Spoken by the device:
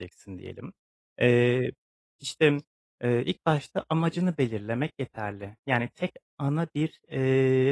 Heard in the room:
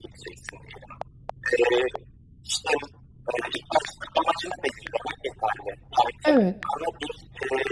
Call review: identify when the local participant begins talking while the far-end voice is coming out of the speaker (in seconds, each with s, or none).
6.2 s